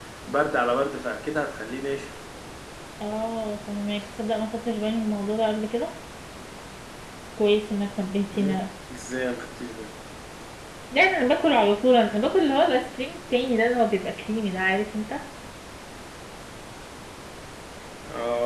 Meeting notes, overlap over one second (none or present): none